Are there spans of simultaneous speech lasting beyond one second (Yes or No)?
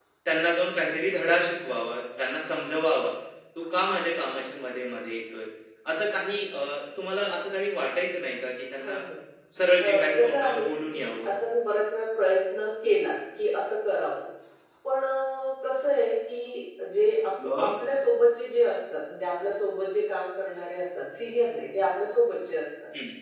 Yes